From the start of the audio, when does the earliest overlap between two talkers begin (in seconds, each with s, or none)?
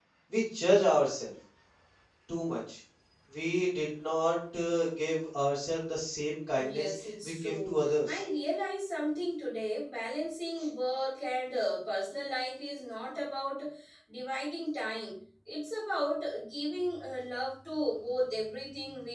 6.5 s